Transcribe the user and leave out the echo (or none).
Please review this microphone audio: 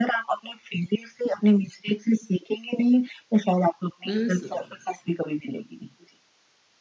अ, सो